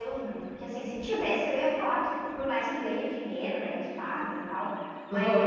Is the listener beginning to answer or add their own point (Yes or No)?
No